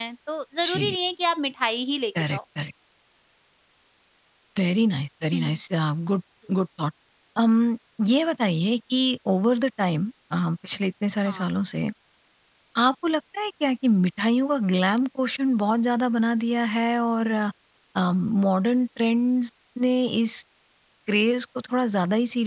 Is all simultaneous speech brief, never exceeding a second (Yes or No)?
Yes